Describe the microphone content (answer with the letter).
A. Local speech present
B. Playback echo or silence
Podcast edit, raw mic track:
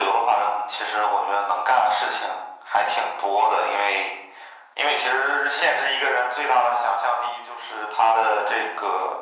B